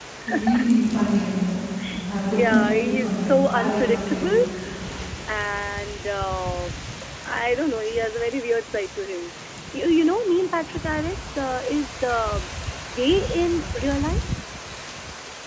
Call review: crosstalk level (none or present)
present